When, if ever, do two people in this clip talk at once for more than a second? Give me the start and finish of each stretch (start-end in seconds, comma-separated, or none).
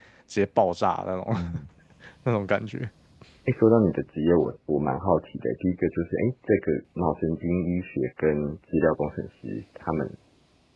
none